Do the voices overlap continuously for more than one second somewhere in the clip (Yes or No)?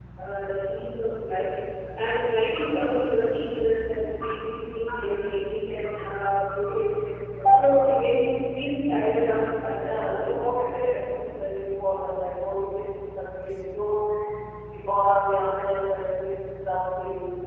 Yes